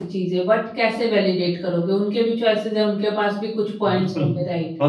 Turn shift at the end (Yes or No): Yes